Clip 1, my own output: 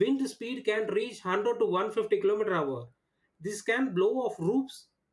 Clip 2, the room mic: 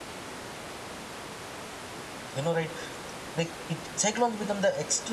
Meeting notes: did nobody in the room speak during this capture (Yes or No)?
No